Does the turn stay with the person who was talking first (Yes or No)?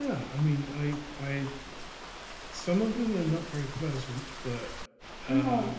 Yes